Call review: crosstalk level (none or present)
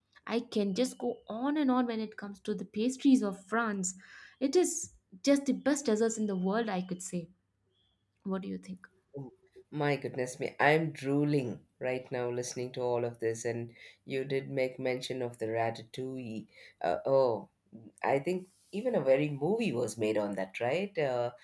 none